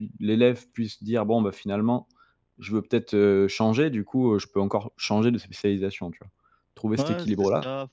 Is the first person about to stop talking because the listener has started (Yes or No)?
Yes